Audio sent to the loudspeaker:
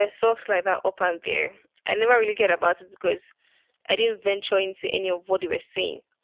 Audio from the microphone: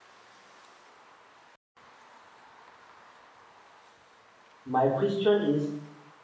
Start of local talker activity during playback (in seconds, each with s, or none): 4.6 s